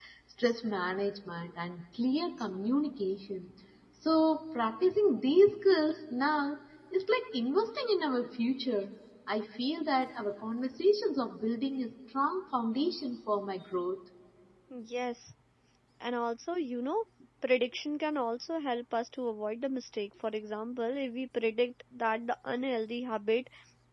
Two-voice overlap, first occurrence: none

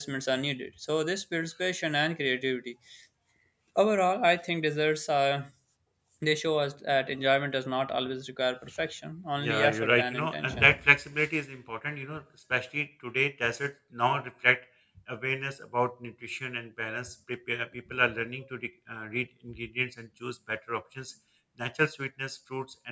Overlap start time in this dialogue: 9.4 s

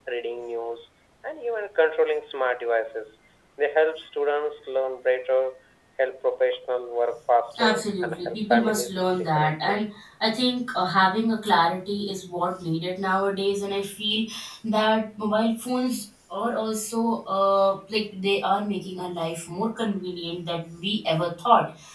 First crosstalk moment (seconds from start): 7.5 s

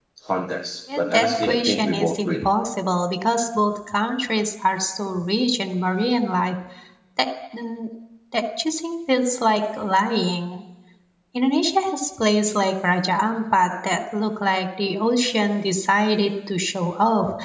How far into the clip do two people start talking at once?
0.9 s

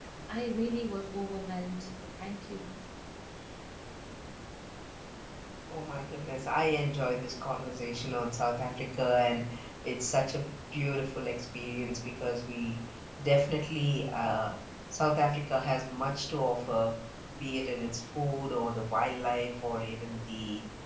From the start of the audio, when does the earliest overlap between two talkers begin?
none

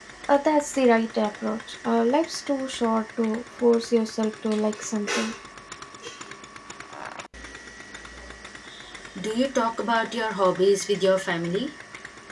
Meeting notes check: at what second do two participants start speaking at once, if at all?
none

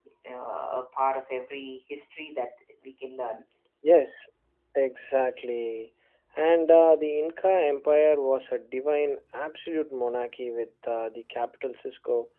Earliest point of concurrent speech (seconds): none

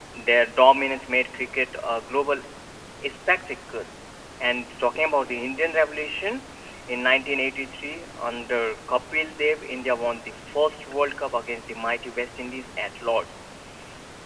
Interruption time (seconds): none

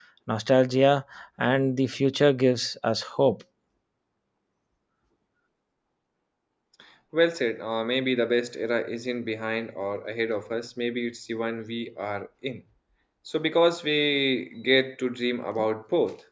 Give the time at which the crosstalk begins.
none

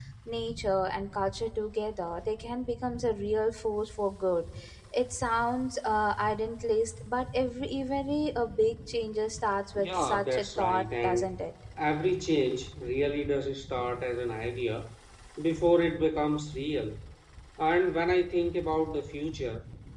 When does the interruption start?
9.8 s

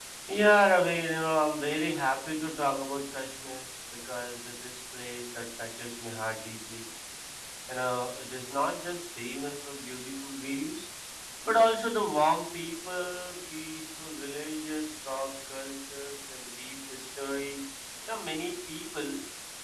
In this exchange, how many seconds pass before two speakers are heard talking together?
none

